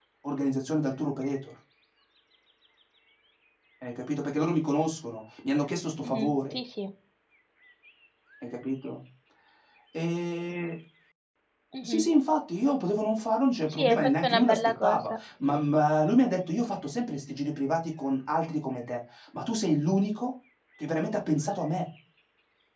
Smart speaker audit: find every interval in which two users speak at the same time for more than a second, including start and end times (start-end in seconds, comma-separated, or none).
13.7-15.0